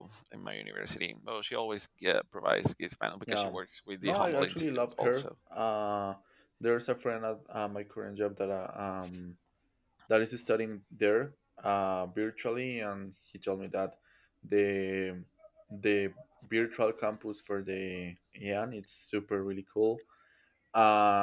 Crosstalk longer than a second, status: present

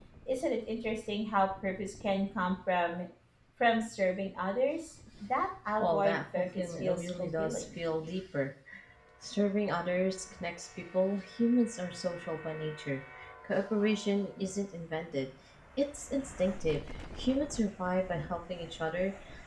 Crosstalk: present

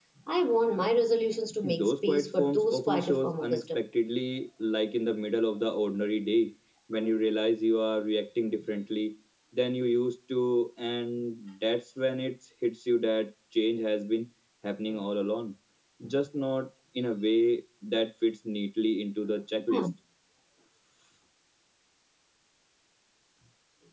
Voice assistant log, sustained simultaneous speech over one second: present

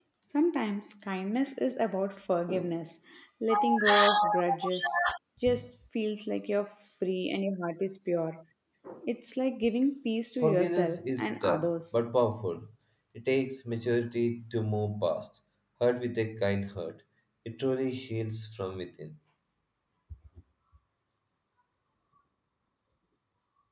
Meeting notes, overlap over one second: present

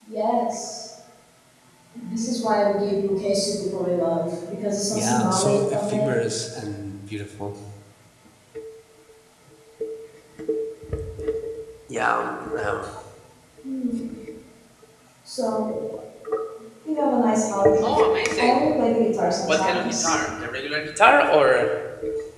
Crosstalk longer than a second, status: present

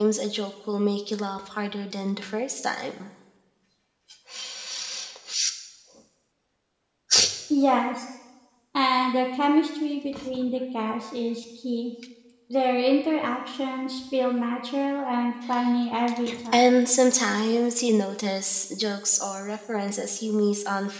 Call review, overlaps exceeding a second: none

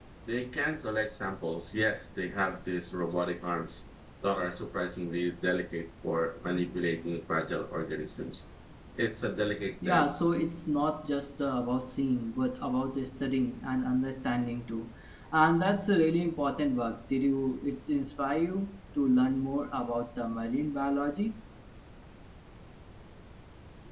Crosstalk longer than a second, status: none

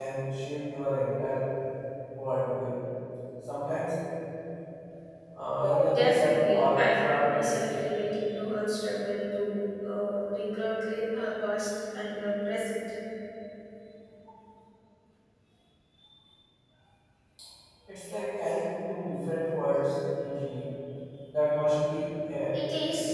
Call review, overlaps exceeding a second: present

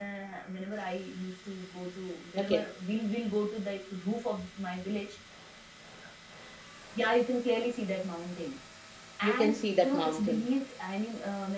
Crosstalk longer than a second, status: present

